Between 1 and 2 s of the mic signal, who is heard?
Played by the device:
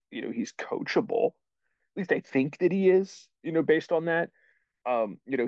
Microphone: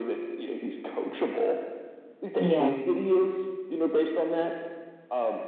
echo only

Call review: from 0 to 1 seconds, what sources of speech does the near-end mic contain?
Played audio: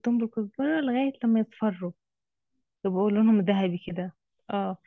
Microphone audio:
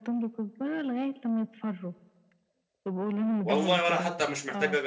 echo only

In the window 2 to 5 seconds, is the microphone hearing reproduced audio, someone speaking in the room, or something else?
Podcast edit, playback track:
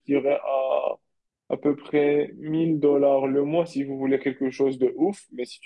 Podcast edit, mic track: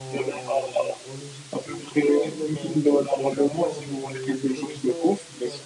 both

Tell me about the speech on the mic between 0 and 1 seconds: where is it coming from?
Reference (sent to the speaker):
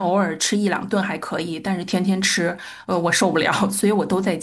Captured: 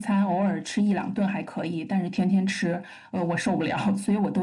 echo only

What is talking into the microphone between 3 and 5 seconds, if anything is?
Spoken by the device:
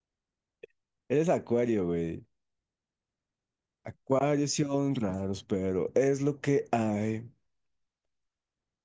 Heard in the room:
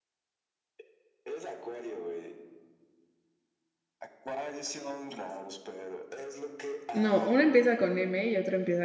echo only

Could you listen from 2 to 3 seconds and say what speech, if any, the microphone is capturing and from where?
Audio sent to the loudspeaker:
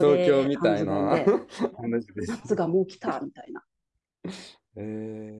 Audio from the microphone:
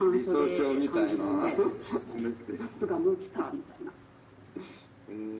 echo only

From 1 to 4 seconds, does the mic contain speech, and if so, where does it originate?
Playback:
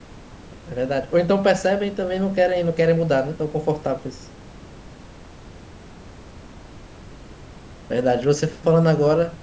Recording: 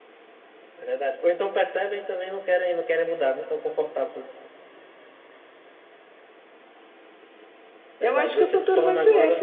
echo only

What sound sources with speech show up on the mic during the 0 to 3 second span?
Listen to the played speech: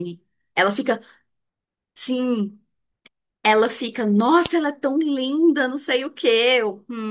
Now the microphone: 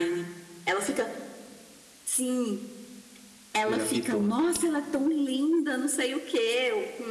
echo only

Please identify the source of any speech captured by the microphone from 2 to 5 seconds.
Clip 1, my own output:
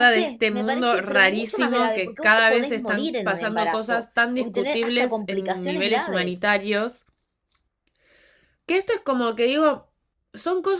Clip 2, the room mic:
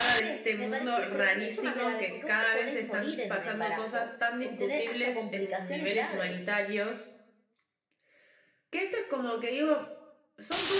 echo only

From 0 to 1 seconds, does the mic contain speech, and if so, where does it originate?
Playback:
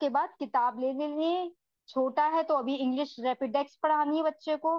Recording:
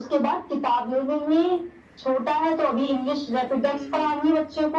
echo only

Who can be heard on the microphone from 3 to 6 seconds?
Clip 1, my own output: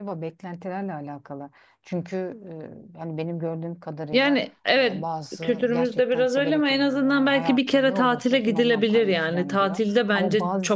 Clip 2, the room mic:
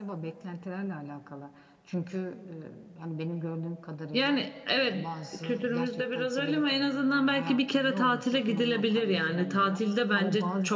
echo only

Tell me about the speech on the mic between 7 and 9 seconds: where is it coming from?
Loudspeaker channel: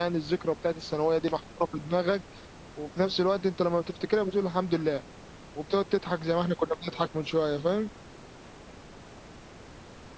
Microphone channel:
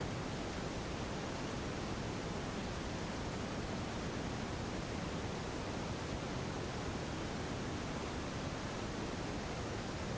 neither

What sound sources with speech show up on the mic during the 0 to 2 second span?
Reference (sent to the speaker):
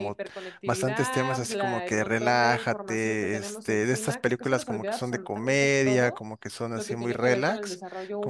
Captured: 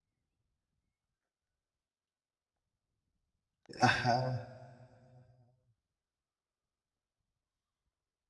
neither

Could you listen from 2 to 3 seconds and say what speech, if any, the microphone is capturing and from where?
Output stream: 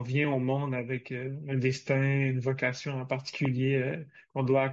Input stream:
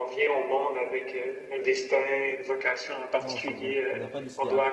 echo only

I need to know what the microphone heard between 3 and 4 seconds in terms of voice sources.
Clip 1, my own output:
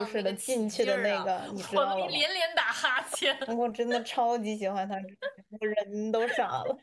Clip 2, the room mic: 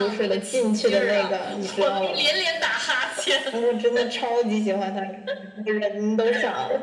echo only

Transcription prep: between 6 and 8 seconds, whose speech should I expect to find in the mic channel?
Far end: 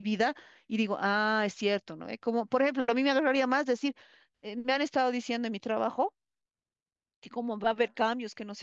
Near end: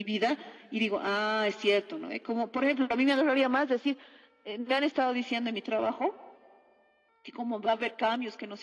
echo only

